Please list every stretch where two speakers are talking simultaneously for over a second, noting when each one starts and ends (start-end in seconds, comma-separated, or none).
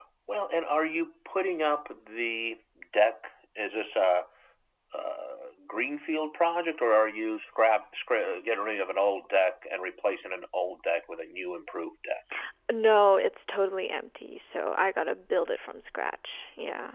none